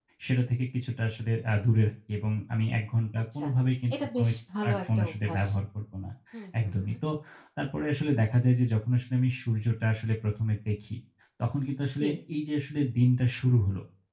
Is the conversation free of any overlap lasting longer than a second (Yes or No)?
No